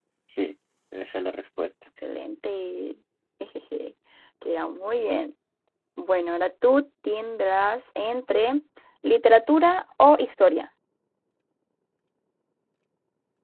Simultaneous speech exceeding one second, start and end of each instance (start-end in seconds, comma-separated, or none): none